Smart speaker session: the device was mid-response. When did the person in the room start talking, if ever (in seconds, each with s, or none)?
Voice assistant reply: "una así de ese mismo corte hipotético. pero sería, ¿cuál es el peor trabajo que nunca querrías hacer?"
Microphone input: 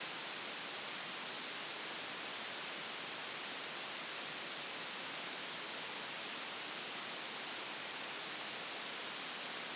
none